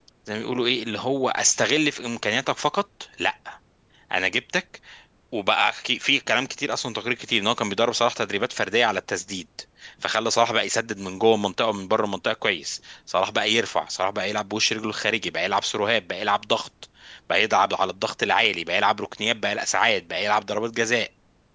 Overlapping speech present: No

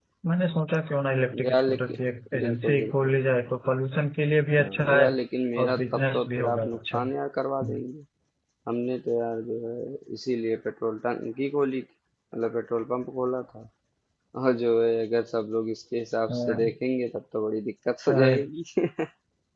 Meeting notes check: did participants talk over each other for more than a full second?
Yes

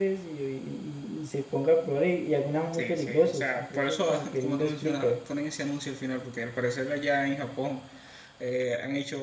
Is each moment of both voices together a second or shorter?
No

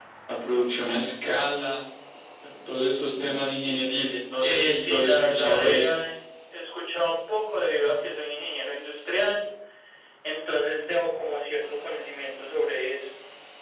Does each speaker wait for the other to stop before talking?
No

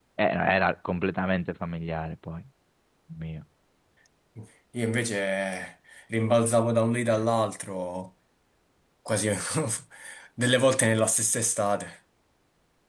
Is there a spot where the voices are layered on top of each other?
No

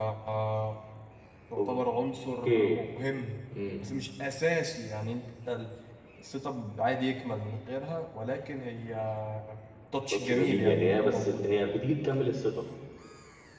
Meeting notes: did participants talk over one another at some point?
Yes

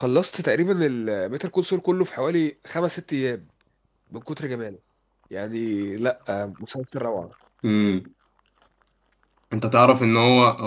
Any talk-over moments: No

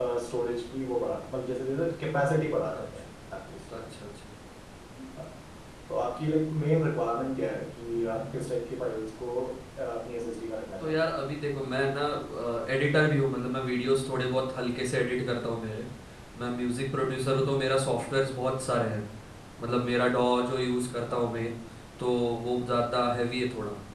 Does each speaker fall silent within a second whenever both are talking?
Yes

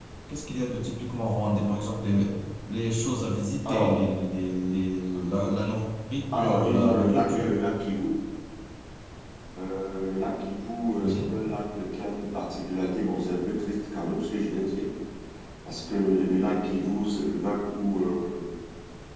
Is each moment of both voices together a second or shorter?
No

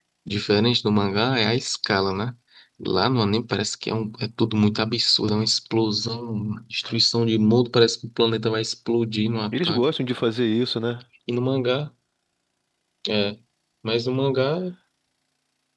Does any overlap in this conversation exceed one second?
No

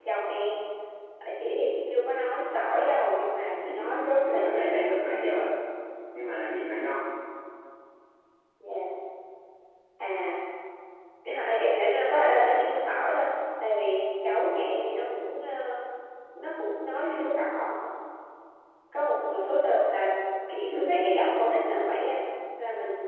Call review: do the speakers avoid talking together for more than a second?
No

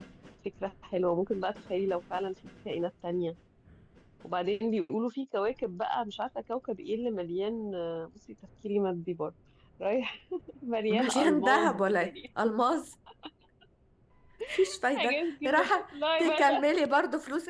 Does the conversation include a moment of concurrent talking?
Yes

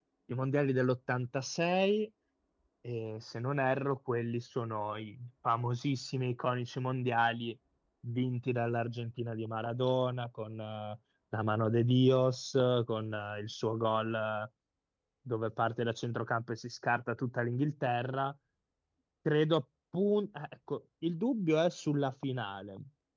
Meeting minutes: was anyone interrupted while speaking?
No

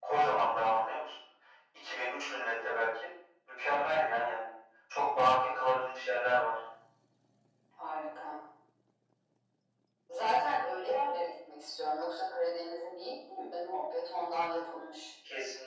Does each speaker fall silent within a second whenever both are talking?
Yes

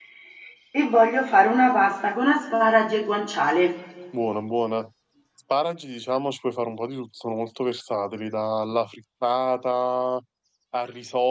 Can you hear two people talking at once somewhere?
No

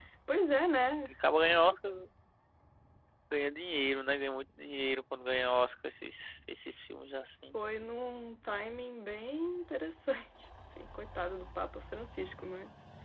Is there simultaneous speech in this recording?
No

